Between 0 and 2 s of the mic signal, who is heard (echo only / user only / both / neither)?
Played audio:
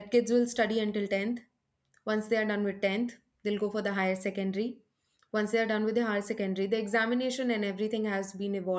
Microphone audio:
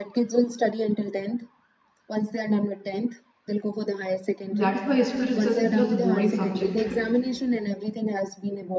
echo only